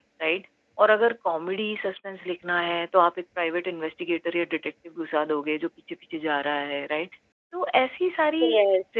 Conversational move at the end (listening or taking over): listening